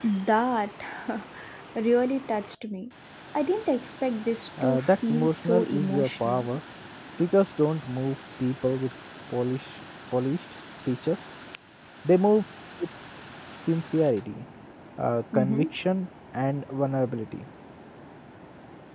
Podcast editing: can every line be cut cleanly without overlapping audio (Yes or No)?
No